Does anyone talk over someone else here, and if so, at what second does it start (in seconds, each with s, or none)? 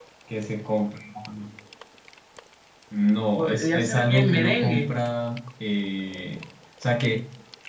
3.4 s